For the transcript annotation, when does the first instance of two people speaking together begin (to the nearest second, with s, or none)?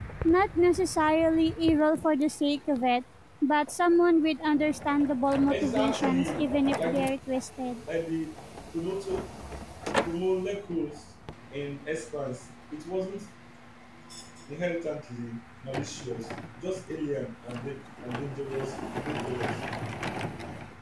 5 s